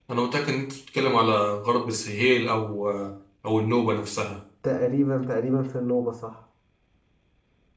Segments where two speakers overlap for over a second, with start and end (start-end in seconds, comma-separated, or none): none